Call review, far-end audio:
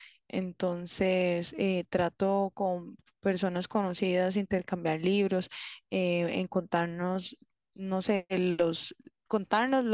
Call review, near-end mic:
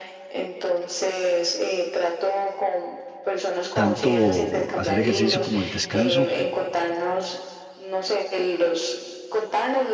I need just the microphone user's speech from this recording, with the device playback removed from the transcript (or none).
tanto hacer ejercicio como el descanso